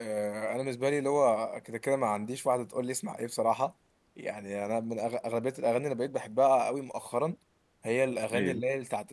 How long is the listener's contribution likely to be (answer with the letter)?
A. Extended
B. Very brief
B